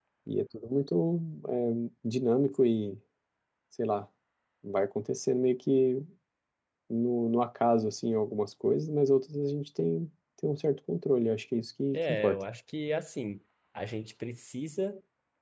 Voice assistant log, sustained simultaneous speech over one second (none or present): none